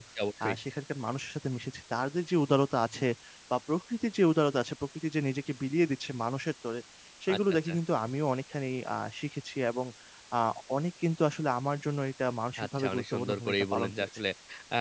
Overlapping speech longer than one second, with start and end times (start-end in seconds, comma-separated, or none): 12.6-14.2